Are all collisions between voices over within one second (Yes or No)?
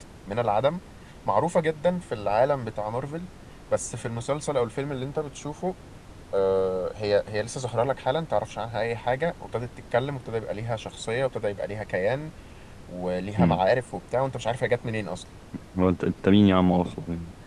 Yes